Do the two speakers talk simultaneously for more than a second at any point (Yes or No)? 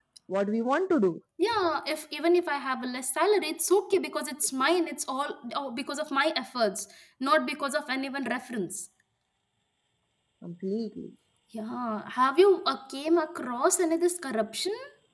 No